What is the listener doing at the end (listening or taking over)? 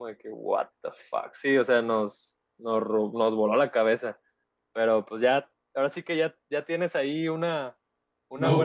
taking over